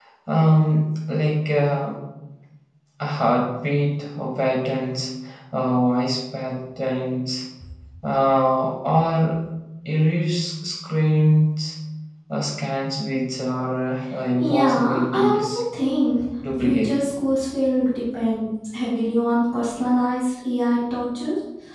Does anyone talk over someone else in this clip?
Yes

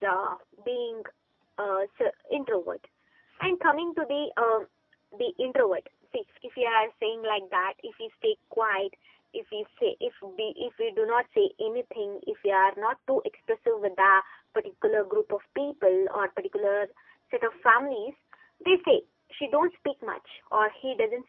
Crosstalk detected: No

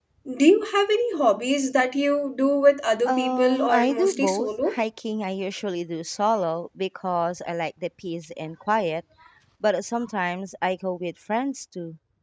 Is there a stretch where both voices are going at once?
Yes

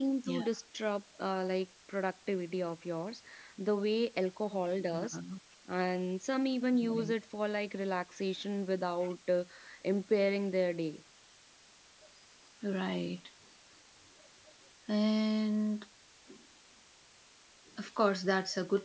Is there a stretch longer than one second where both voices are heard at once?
No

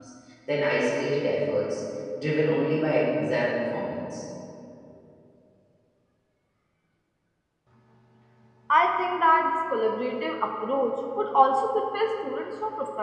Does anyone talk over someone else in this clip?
No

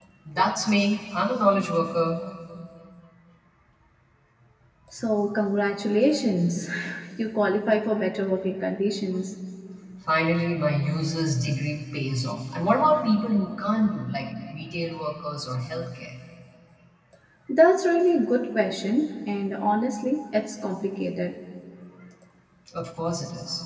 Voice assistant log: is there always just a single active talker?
Yes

